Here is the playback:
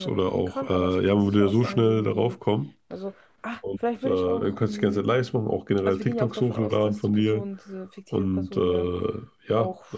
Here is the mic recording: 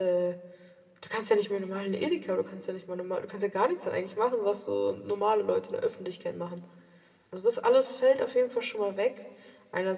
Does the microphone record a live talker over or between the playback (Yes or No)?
Yes